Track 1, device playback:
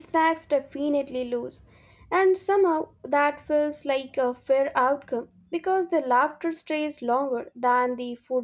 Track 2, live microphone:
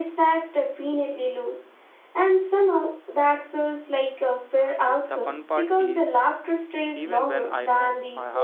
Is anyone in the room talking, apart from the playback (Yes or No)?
Yes